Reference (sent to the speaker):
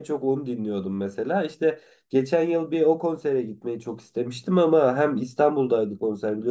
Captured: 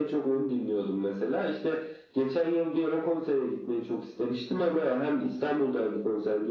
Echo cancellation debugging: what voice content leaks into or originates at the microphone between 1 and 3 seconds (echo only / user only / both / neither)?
echo only